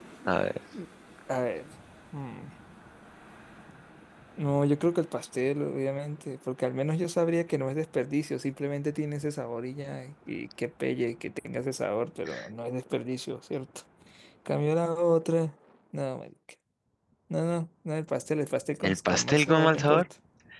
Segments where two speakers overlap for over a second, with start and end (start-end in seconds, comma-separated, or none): 18.8-20.1